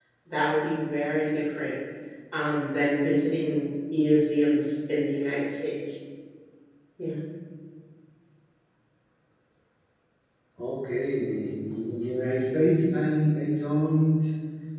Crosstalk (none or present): none